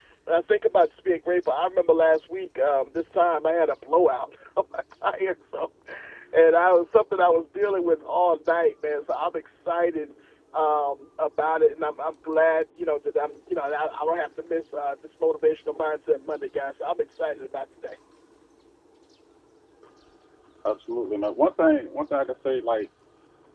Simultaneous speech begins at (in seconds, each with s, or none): none